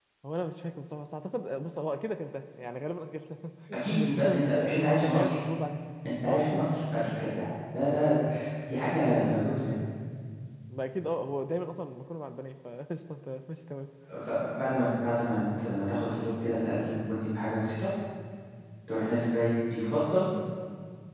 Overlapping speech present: Yes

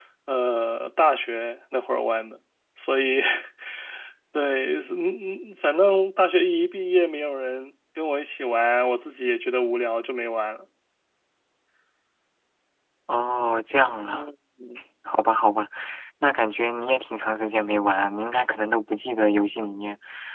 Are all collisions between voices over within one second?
Yes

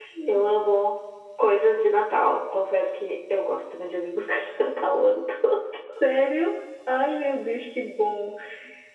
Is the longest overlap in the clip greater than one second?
No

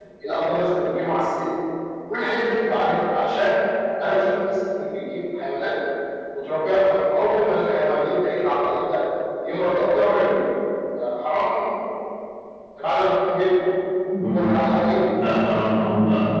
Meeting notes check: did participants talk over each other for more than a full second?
No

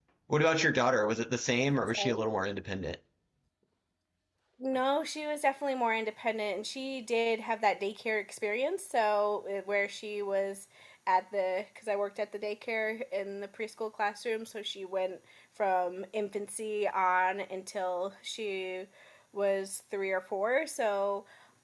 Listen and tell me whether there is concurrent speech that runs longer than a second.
No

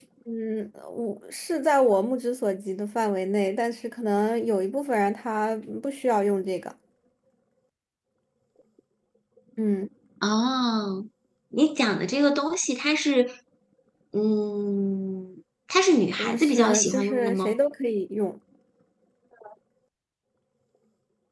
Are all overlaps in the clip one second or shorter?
No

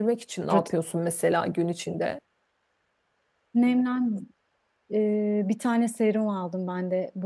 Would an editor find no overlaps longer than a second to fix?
Yes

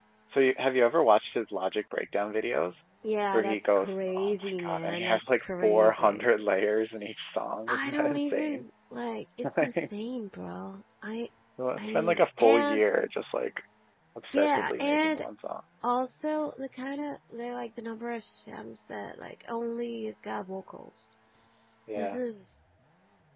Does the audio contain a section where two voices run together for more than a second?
Yes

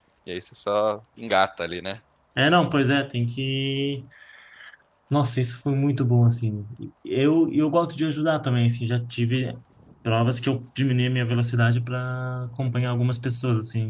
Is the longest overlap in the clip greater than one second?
No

